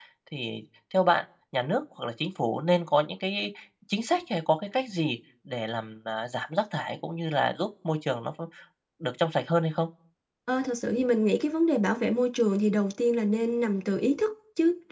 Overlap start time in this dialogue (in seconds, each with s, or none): none